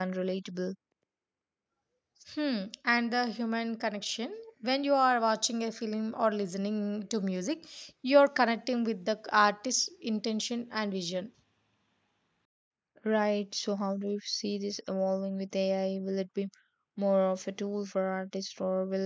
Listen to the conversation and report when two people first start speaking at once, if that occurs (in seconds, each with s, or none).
none